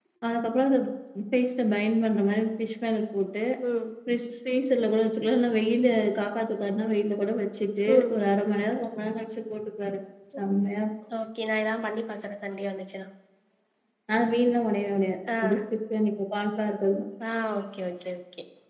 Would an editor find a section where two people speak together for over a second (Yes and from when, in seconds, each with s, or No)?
No